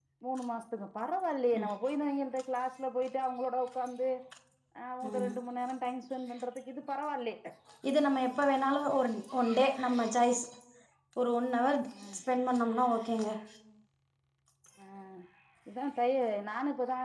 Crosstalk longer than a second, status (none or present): none